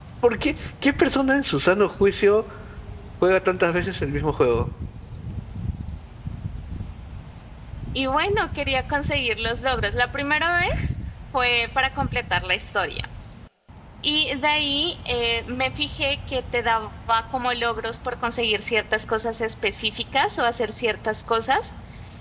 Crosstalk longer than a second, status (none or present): none